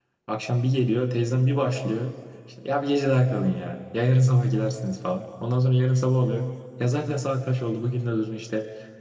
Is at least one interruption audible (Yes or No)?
No